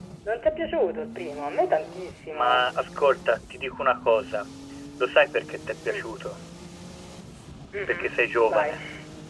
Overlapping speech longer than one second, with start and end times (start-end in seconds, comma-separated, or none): none